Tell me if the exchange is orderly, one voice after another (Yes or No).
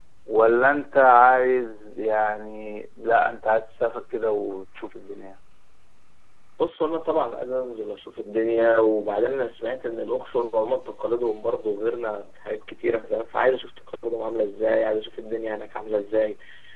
Yes